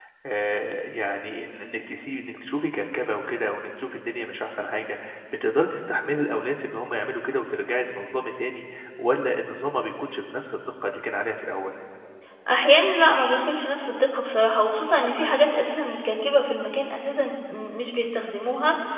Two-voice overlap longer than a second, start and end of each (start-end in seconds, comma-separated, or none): none